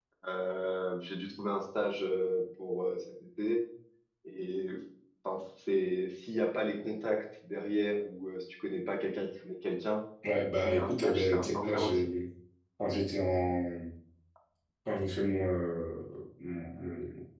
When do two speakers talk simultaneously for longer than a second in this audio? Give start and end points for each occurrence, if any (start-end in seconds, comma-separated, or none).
10.6-12.1